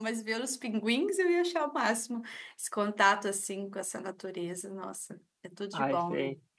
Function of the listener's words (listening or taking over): taking over